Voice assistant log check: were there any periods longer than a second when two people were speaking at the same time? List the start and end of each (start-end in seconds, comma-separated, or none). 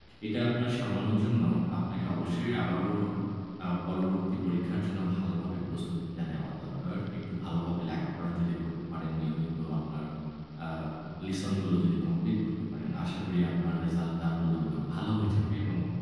none